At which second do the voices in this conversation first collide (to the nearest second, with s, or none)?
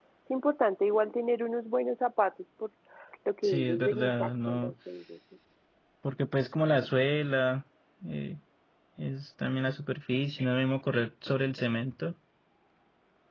3 s